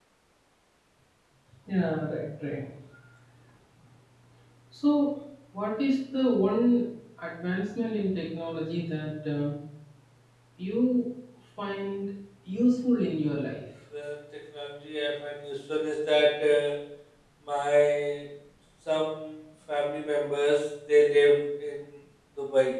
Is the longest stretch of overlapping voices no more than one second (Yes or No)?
Yes